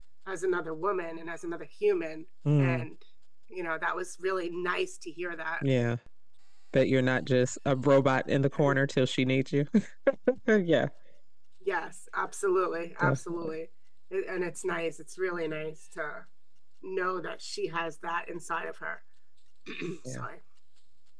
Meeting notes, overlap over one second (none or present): none